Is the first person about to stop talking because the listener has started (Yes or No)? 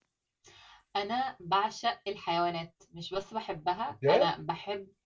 No